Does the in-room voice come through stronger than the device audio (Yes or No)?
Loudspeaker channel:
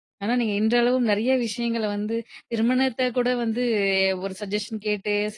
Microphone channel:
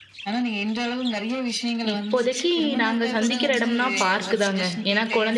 Yes